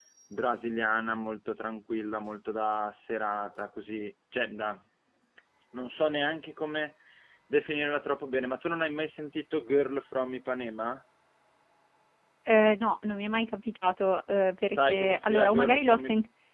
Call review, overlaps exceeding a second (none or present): present